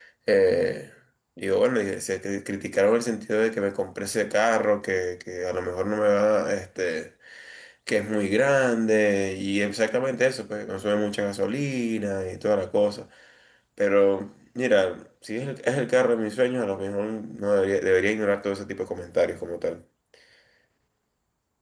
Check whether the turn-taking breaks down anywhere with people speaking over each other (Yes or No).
No